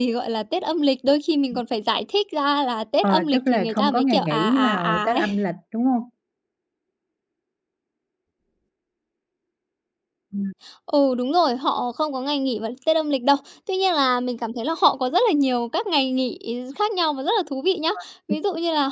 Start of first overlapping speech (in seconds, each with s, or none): 3.0 s